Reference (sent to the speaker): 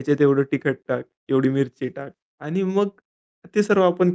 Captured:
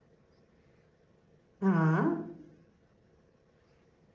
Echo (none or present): none